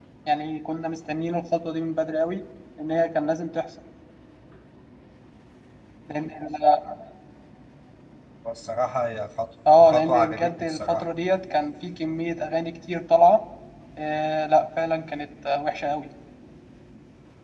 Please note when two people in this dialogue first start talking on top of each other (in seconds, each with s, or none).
9.7 s